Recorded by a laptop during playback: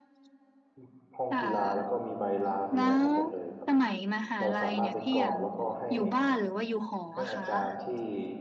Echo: present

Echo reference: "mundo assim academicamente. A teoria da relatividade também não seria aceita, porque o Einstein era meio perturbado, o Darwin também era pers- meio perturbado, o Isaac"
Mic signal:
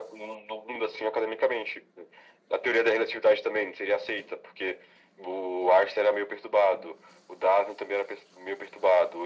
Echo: present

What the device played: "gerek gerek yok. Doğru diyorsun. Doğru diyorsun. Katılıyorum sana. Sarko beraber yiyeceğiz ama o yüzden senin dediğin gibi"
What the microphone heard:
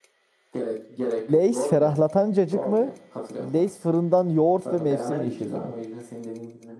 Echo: present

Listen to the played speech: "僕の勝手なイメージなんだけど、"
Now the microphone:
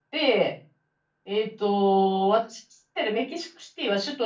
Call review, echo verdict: none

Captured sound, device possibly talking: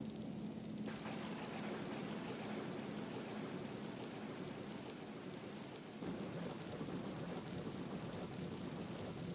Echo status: none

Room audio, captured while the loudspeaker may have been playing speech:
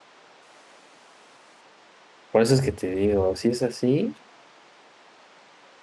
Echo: none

